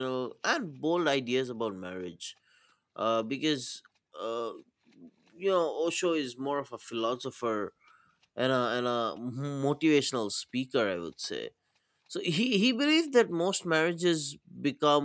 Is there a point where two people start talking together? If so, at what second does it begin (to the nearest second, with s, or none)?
none